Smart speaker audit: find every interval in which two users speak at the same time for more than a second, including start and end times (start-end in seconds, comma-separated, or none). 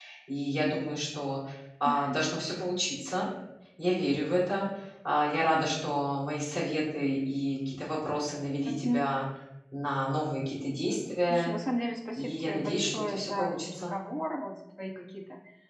12.2-13.9